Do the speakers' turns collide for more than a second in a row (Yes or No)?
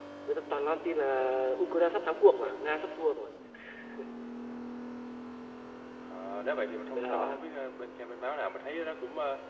No